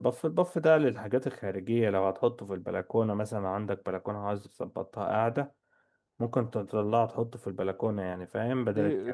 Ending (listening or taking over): taking over